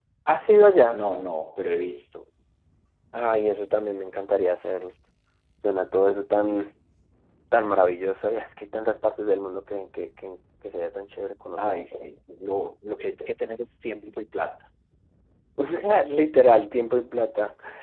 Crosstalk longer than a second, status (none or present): none